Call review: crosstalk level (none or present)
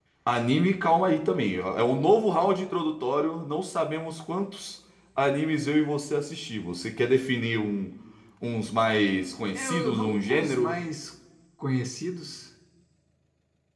present